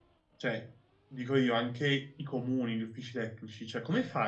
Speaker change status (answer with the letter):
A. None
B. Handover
A